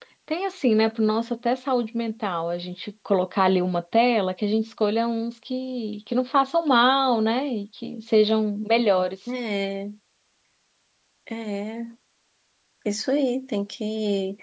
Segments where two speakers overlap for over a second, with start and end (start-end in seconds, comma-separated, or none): none